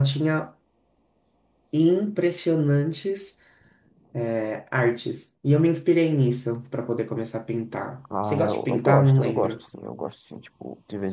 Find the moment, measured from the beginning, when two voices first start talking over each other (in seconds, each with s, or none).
8.1 s